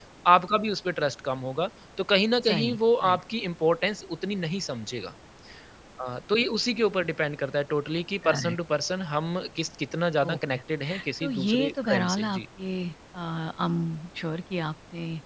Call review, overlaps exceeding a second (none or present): present